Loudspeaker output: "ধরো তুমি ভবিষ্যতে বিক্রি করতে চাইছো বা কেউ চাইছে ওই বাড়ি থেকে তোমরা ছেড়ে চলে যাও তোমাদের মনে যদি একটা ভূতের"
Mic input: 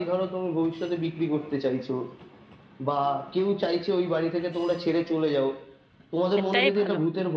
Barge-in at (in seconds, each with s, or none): 6.4 s